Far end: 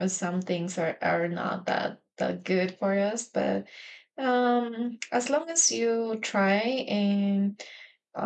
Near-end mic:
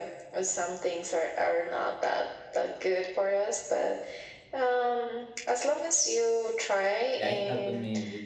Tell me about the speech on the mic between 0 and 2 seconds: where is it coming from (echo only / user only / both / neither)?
echo only